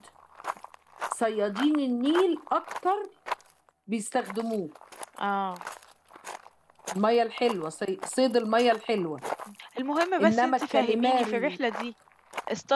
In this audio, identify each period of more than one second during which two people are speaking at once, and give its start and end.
10.2-11.6

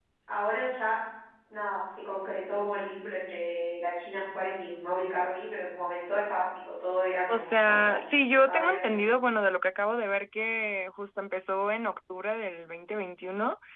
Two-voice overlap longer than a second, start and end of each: 7.3-9.0

